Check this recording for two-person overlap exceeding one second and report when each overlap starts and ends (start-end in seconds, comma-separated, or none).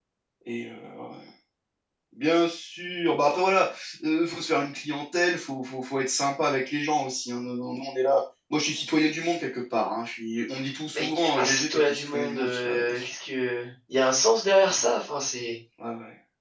10.9-13.1